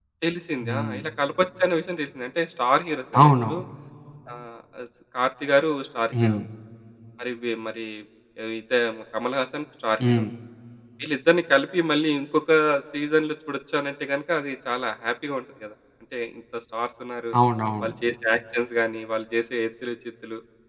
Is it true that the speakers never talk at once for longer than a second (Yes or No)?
Yes